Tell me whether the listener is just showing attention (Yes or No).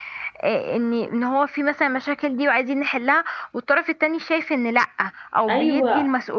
No